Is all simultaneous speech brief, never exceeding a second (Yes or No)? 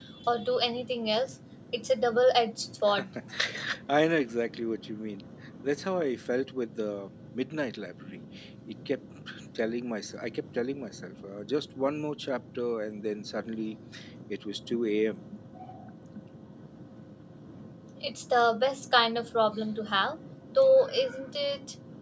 Yes